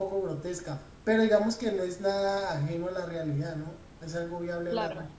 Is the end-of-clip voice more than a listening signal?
Yes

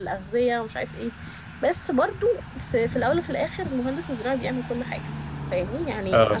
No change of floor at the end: Yes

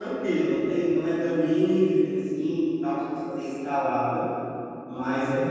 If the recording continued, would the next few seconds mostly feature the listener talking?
No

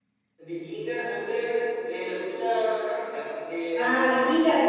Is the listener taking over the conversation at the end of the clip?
Yes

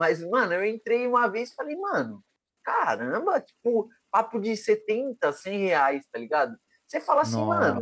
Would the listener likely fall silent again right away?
Yes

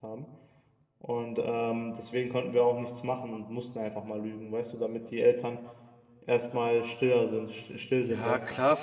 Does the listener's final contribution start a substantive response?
Yes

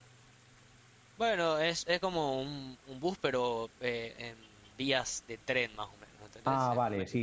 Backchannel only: No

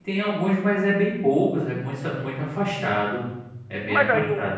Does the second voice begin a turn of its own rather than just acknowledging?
Yes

